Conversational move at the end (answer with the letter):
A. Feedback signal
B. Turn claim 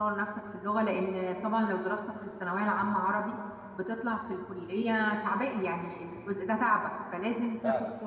A